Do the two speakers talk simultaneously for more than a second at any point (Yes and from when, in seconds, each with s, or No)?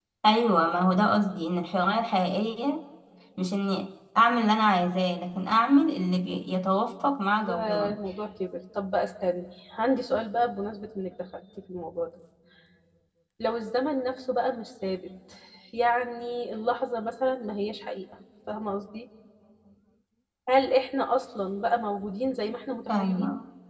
No